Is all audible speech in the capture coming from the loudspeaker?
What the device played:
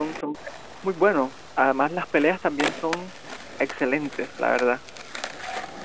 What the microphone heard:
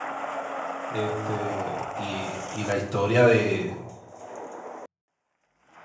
No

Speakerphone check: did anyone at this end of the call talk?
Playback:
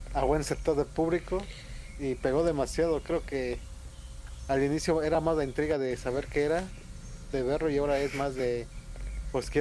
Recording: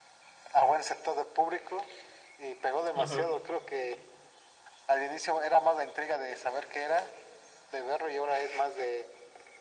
Yes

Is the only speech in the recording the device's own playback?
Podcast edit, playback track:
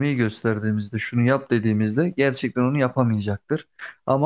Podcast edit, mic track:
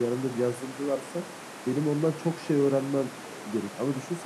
No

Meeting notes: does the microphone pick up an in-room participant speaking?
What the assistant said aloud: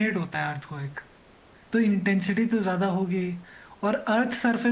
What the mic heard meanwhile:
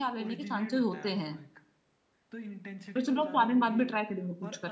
Yes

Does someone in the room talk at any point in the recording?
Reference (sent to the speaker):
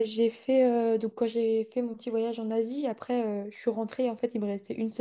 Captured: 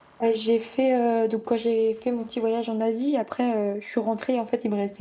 No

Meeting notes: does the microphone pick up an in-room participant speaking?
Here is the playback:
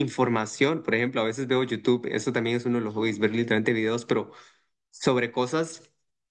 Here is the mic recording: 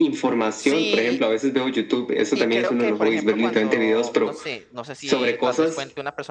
Yes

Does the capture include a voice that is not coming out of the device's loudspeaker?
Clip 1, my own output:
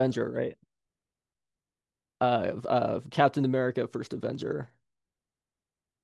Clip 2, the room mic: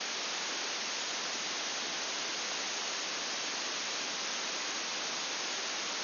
No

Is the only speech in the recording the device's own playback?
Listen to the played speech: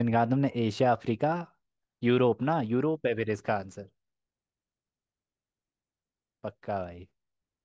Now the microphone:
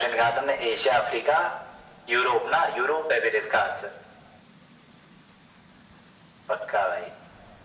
Yes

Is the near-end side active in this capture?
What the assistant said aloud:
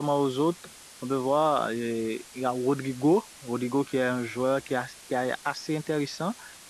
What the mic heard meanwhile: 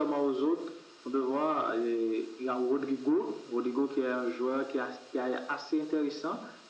No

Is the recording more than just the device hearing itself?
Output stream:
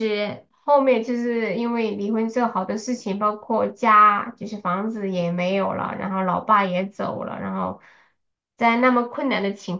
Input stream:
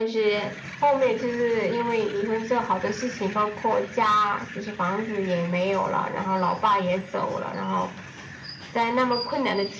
No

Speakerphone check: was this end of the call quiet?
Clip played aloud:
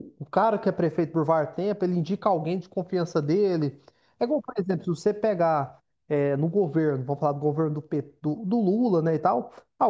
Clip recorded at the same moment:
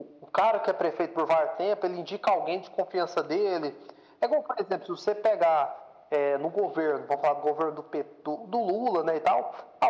Yes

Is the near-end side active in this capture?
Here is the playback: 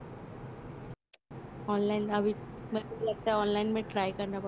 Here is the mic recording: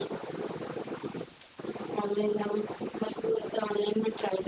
No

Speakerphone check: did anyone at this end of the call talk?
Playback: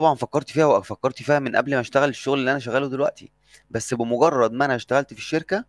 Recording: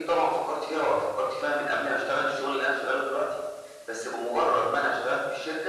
No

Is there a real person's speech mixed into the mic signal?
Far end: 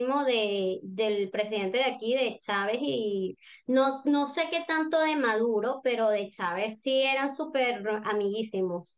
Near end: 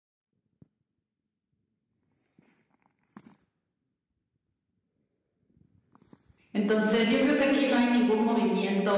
Yes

